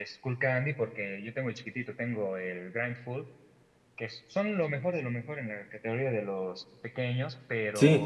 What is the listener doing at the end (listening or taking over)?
taking over